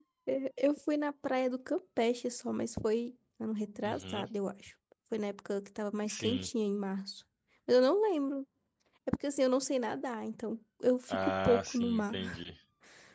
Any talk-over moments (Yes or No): Yes